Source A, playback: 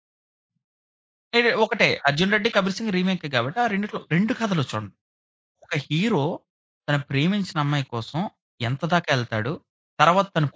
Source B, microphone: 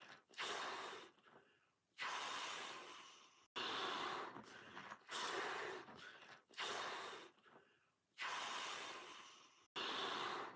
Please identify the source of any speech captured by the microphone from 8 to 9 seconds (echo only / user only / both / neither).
neither